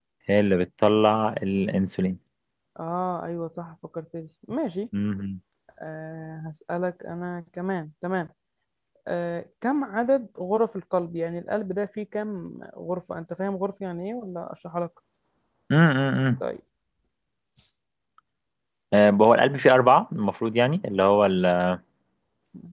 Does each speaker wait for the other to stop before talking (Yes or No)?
Yes